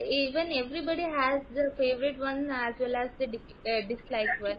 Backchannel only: Yes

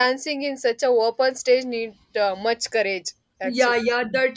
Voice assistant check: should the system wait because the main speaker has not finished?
No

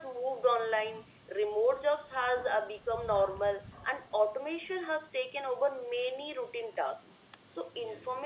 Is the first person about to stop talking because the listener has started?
No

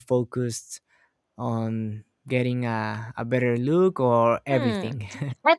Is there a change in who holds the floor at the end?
Yes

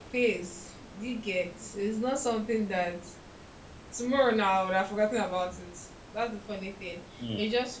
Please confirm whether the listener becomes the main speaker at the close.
No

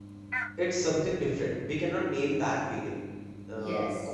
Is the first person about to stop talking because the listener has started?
No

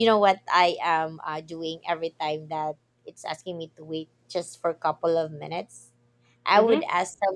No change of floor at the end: Yes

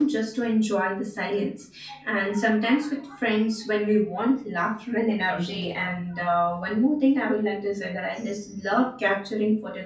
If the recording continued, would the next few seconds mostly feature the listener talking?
No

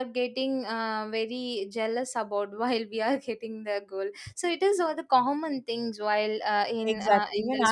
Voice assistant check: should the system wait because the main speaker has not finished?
No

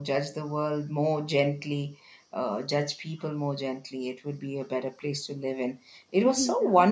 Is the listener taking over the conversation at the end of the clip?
No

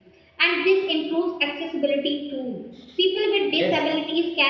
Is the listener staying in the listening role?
Yes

